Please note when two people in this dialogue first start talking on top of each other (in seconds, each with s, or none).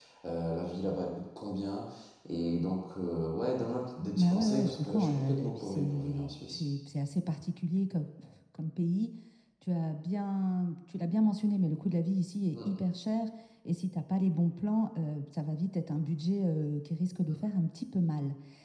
4.2 s